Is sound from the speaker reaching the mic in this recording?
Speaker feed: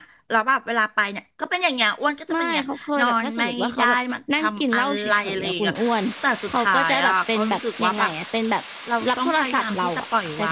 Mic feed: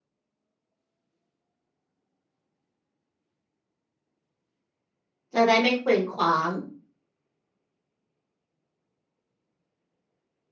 No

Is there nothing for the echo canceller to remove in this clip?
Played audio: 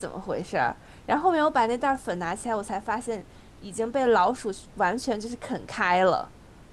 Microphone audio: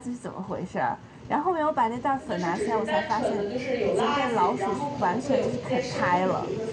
No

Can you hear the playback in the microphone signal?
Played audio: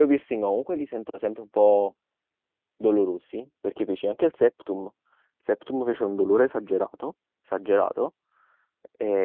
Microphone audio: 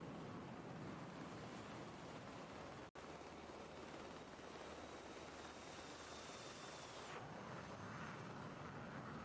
No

